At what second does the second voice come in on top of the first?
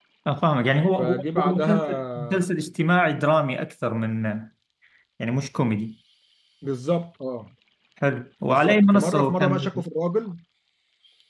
1 s

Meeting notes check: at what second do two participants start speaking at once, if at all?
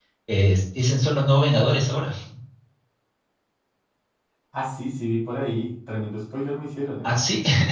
none

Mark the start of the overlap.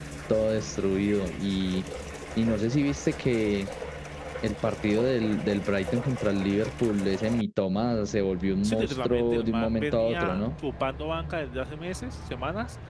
9 s

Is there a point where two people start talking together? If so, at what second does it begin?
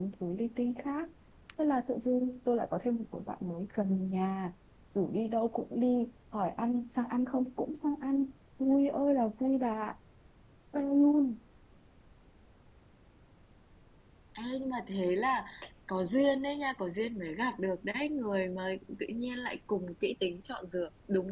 none

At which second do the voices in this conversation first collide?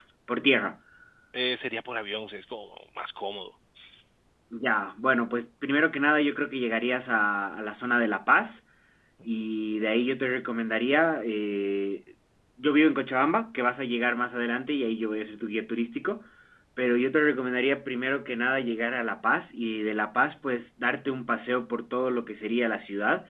none

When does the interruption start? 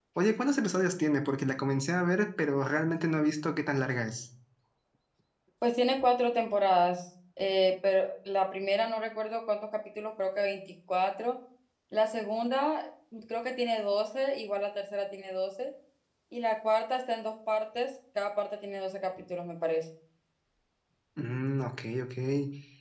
none

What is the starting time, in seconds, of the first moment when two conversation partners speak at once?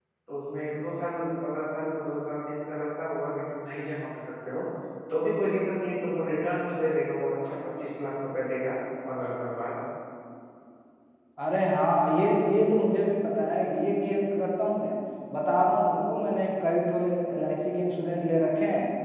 none

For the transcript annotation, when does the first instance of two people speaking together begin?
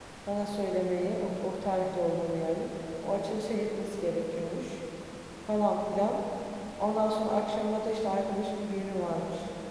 none

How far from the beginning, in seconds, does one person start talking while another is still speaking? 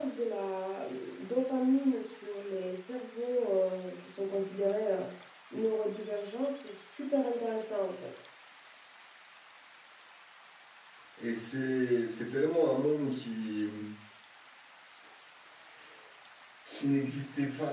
none

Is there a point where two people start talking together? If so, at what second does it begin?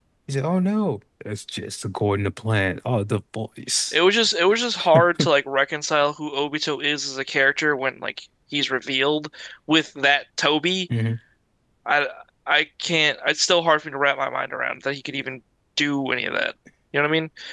none

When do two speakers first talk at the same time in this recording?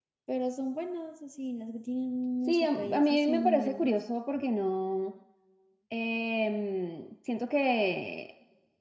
2 s

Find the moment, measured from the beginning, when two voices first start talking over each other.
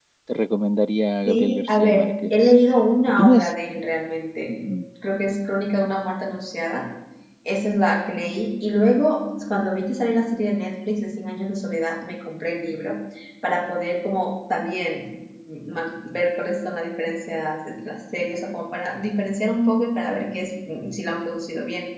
1 s

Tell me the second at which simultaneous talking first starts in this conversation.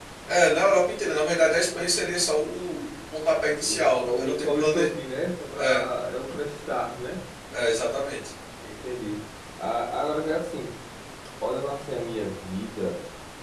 4 s

